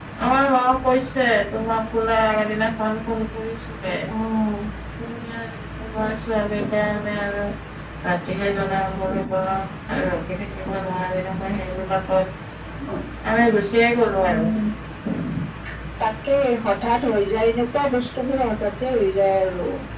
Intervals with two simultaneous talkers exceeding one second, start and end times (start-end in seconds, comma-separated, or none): none